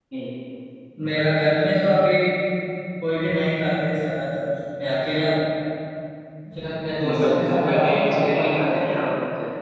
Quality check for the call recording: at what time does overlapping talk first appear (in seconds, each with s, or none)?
7.0 s